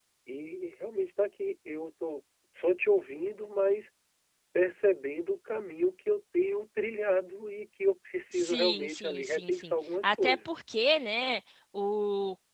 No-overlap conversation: No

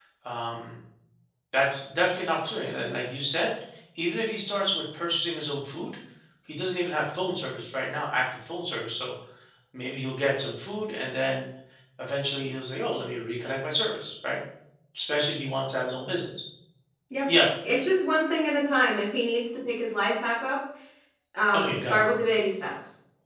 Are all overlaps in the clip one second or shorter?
Yes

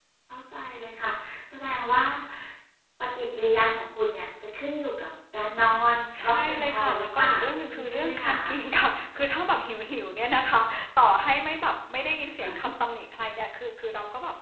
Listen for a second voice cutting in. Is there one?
Yes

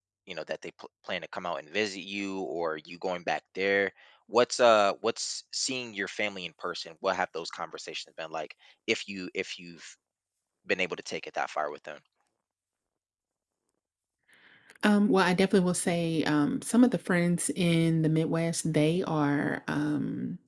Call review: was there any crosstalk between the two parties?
No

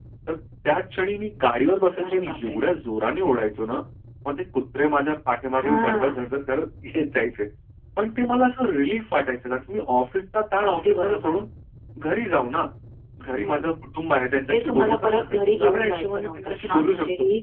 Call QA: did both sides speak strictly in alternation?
No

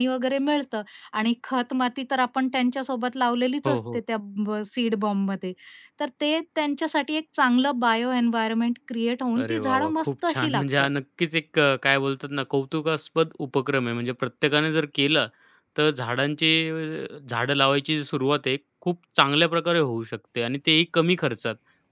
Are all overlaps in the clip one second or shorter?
No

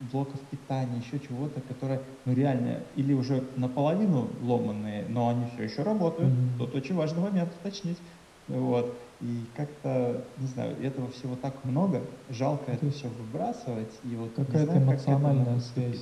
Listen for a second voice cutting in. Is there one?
Yes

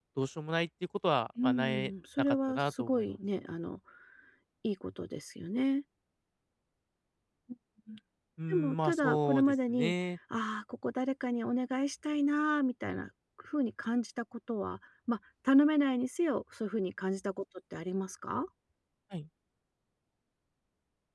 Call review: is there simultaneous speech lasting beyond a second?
Yes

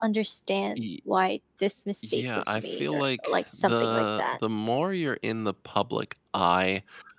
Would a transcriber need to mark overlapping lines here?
Yes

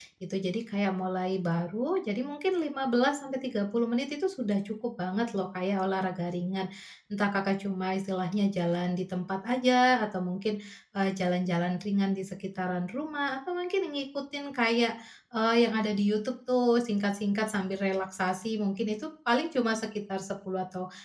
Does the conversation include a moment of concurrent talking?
No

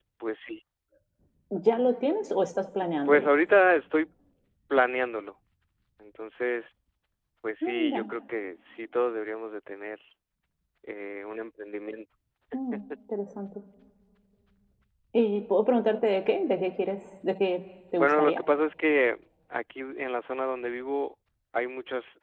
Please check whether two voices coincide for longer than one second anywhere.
No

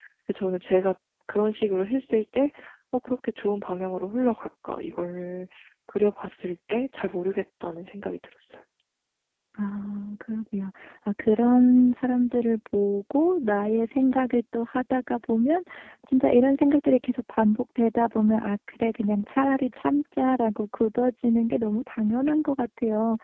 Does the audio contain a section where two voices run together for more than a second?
No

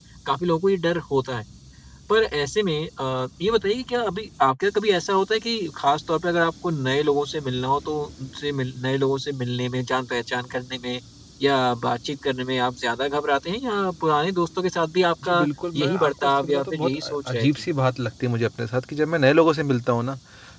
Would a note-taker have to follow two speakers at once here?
Yes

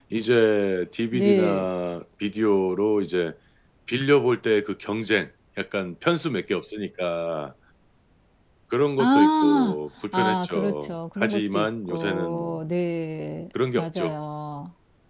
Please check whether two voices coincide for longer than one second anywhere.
Yes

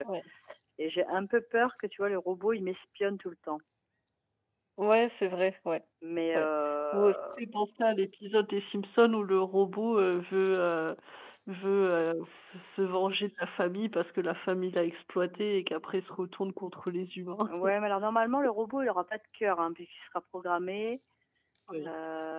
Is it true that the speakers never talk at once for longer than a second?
Yes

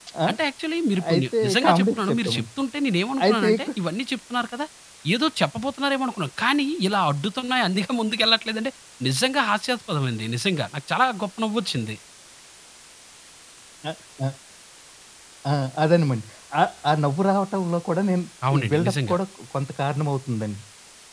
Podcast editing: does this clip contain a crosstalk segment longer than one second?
Yes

